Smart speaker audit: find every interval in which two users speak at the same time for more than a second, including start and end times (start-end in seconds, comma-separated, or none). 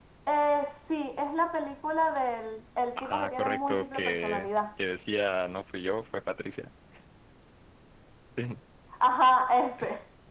3.0-4.5